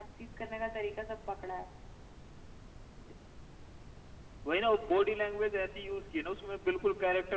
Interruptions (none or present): none